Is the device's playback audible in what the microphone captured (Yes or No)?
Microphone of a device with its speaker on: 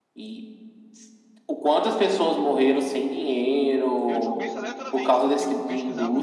Yes